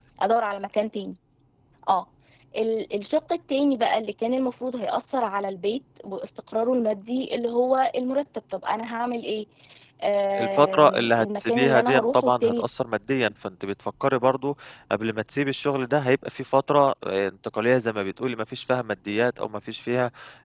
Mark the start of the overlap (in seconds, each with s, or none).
10.4 s